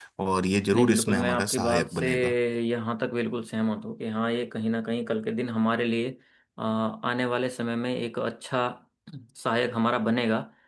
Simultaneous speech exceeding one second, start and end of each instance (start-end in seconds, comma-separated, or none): 0.7-2.1